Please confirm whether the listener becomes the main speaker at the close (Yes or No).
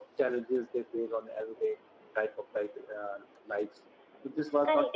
Yes